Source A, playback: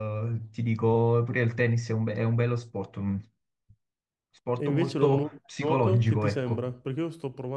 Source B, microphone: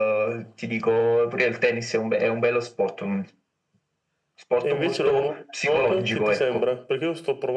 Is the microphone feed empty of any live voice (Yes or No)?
Yes